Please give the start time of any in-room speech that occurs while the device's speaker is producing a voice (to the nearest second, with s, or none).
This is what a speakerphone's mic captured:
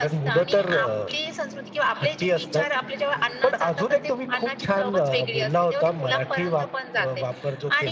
none